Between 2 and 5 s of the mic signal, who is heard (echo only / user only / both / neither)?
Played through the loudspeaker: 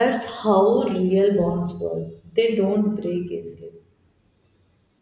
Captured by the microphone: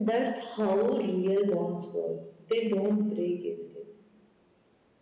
echo only